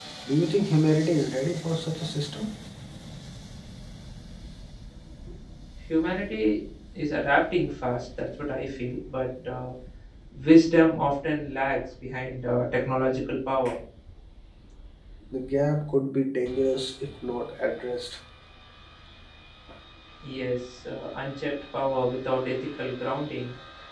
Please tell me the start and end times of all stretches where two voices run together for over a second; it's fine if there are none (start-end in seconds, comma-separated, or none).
none